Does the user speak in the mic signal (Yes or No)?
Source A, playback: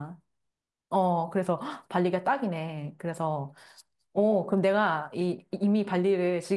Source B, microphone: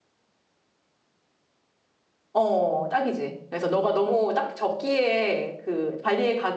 Yes